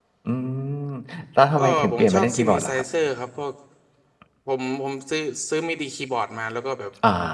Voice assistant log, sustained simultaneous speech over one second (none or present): present